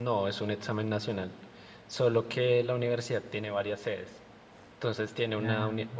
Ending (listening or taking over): listening